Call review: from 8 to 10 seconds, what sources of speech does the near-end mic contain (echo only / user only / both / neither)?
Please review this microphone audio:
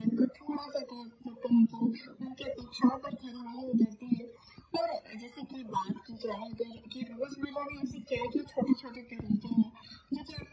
echo only